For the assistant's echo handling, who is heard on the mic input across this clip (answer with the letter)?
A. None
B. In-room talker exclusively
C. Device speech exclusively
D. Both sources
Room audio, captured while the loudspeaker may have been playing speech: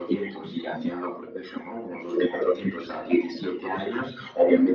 C